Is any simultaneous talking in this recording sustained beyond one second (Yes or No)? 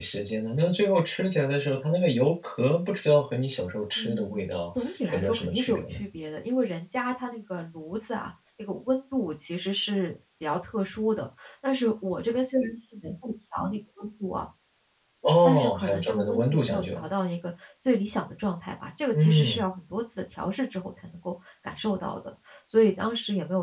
Yes